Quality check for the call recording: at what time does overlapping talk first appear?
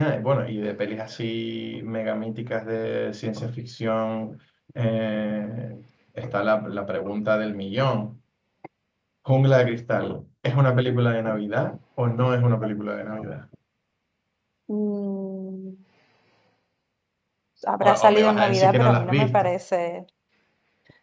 17.8 s

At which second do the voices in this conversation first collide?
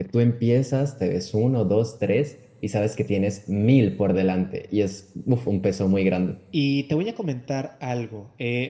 none

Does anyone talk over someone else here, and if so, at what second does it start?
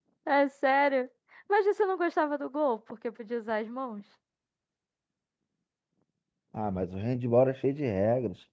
none

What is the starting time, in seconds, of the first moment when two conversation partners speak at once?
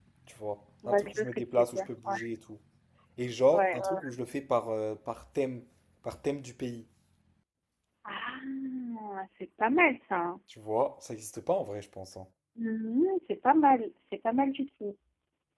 0.9 s

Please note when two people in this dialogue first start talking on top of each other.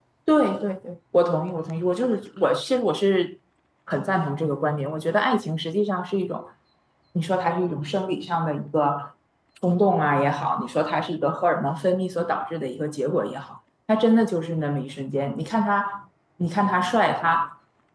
none

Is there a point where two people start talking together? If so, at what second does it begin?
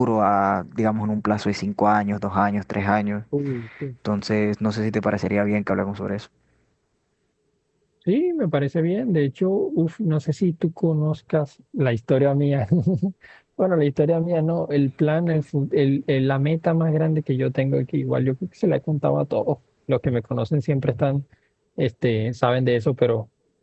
none

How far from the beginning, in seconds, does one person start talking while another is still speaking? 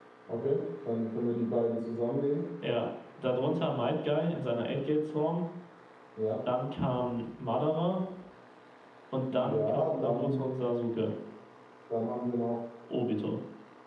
9.3 s

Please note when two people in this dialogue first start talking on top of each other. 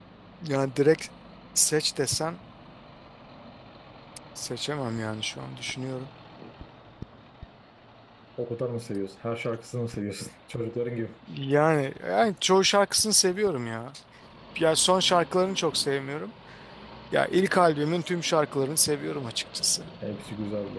none

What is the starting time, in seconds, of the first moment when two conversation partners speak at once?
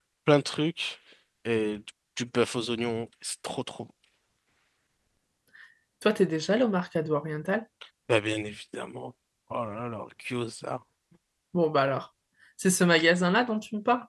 none

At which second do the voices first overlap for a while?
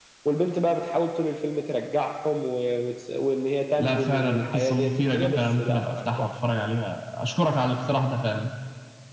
3.8 s

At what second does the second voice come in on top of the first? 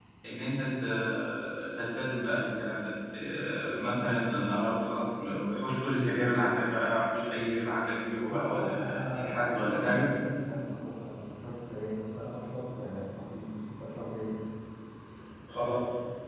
8.3 s

